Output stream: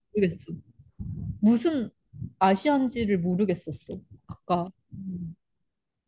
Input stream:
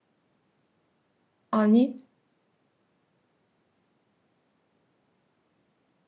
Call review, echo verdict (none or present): none